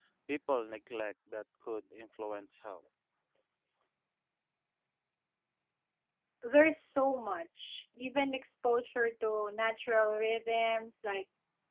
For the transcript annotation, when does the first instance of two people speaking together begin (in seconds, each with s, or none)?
none